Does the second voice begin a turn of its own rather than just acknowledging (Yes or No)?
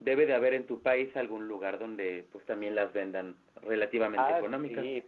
Yes